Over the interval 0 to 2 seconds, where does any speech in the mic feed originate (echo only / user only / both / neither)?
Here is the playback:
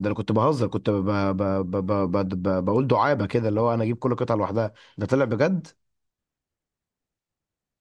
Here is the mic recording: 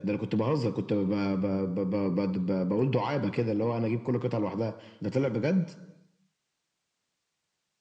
echo only